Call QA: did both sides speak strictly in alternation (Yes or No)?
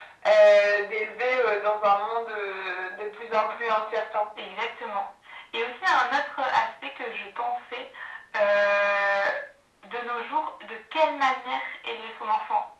Yes